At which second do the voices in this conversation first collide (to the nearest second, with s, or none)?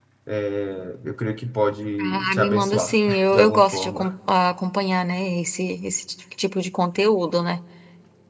2 s